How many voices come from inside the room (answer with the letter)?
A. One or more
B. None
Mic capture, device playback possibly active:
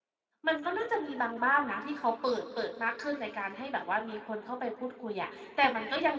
A